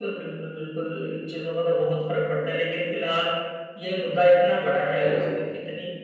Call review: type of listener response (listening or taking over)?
listening